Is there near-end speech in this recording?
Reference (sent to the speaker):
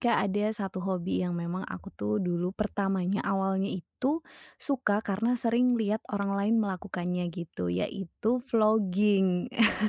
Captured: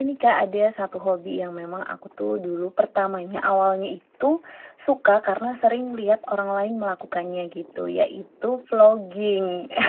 No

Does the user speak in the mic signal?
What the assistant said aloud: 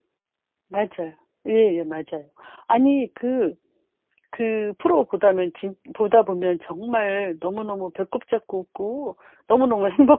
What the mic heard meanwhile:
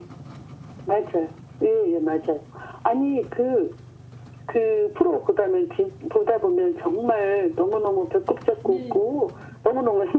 Yes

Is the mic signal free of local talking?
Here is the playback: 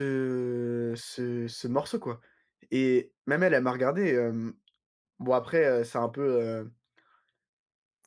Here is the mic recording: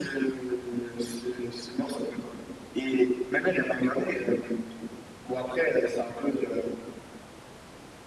Yes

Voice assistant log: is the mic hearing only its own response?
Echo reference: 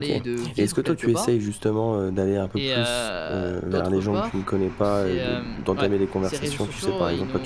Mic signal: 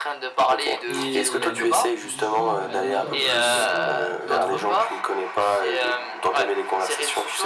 No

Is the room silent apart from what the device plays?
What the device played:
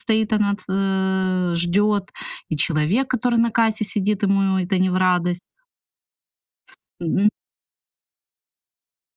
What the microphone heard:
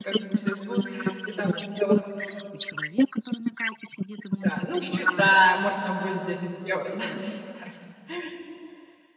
No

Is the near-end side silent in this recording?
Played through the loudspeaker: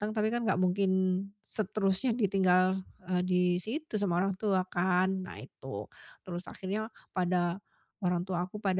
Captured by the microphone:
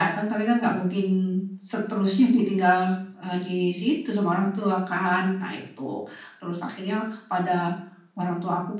Yes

